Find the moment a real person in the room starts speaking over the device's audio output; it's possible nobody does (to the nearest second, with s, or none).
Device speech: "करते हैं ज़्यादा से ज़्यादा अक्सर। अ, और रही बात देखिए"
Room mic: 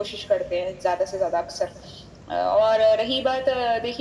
none